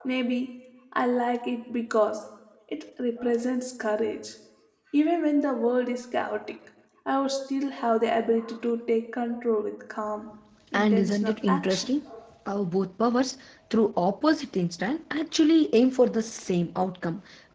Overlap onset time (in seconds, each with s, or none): 10.7 s